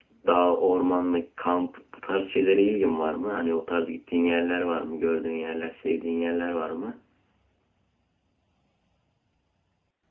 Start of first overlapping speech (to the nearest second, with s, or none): none